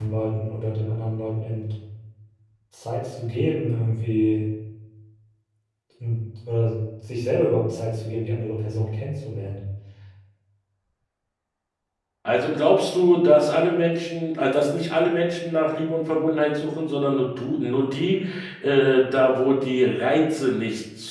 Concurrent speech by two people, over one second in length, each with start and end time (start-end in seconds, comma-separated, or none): none